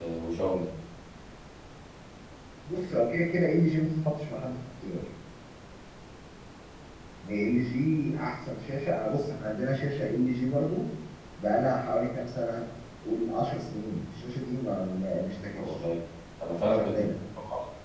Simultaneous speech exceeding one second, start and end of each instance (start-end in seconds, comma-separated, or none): none